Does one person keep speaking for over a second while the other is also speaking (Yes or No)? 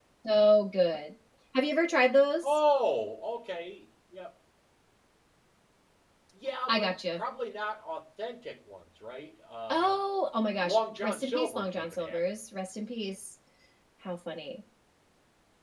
Yes